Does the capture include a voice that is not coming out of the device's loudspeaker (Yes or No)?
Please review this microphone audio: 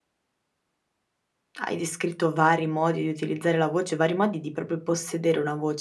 Yes